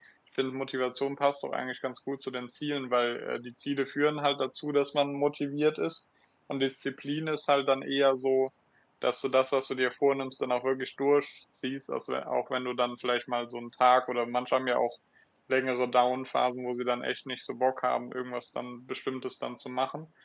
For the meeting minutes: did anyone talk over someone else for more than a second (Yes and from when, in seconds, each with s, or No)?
No